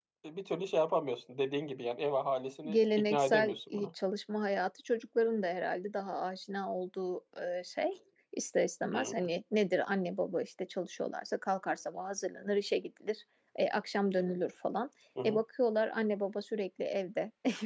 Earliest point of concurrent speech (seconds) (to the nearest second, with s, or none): 3 s